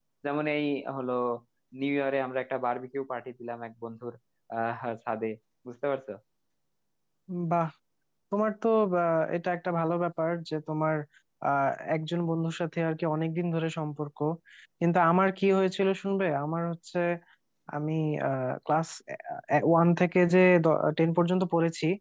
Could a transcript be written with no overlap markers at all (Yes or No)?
Yes